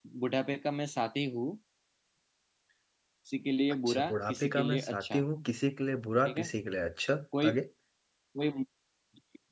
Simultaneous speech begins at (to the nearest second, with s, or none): 4 s